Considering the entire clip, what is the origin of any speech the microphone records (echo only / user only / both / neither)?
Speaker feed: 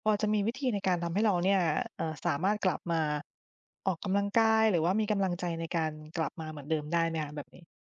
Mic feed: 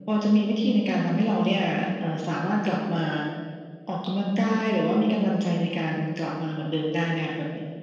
echo only